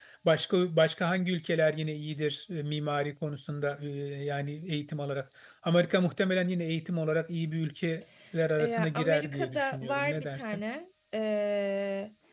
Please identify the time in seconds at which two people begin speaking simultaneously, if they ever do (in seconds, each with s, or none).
8.6 s